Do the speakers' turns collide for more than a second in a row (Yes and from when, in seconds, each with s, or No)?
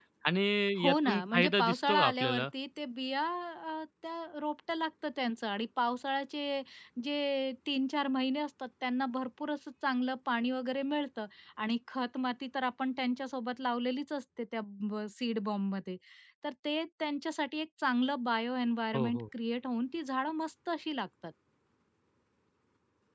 Yes, from 0.9 s